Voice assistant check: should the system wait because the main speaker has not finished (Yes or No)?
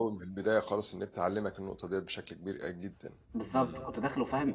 No